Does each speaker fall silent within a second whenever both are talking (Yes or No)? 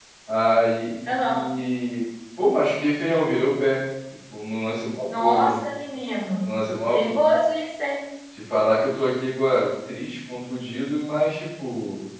Yes